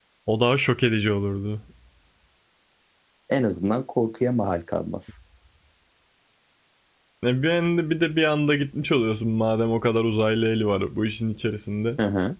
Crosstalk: none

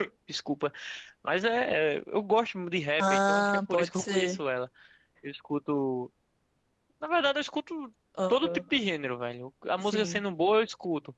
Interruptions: present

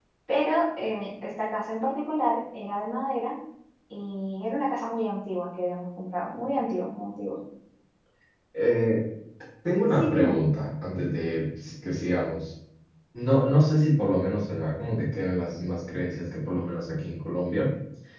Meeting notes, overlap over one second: none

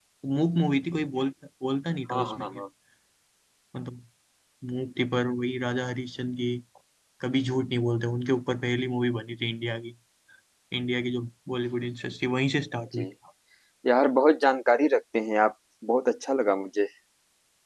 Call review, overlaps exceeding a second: none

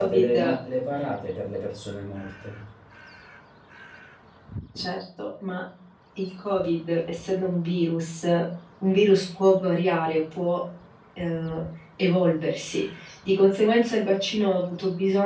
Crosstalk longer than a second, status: none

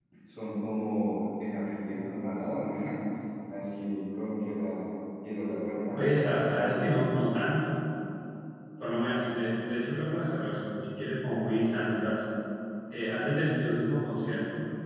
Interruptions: present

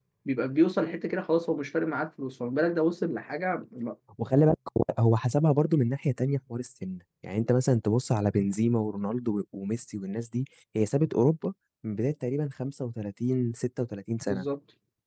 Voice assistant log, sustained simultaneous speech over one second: none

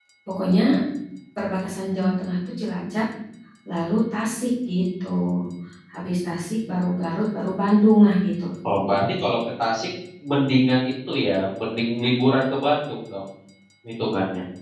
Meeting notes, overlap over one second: none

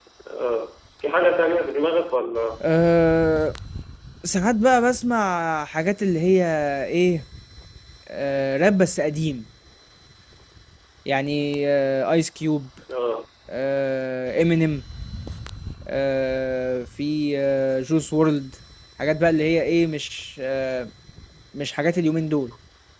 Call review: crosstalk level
none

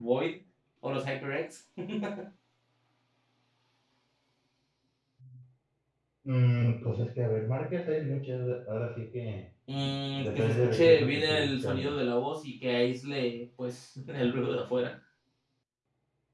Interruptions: present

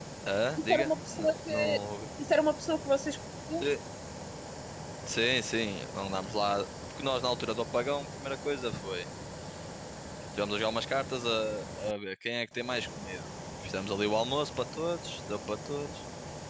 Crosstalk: present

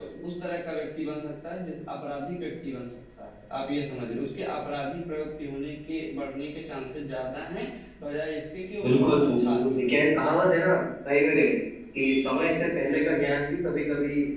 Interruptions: present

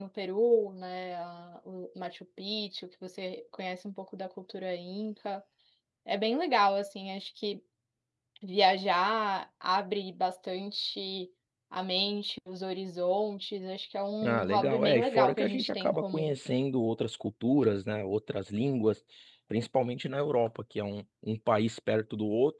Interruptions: present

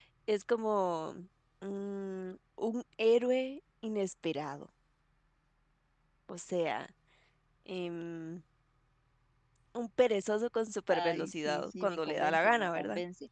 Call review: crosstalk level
present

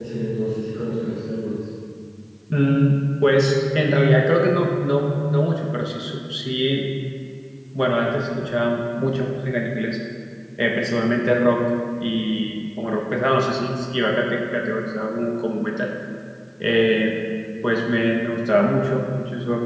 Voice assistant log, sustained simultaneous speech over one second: none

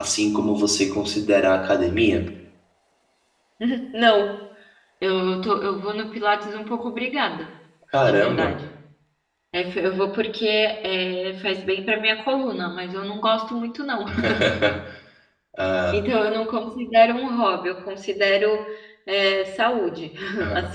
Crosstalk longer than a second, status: none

